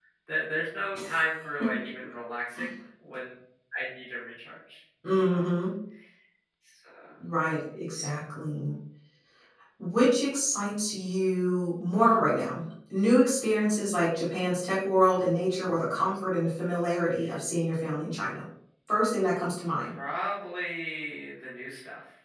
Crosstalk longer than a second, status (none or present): none